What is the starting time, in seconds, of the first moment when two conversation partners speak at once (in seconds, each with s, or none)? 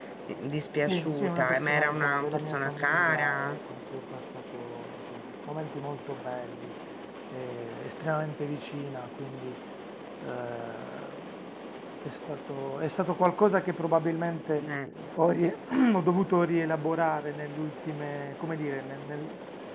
0.9 s